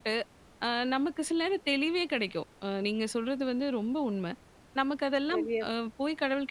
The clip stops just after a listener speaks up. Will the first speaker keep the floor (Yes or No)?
Yes